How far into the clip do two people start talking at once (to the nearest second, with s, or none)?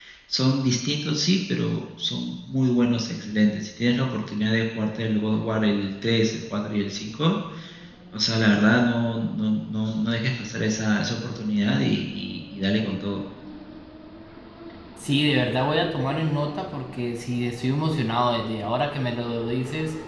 none